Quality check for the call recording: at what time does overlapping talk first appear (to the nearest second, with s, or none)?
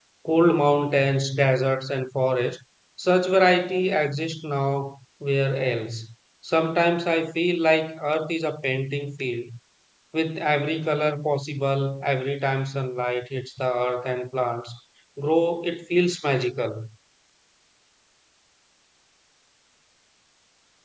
none